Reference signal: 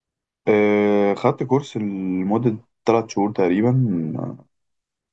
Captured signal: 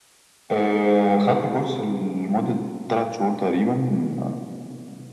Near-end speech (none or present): none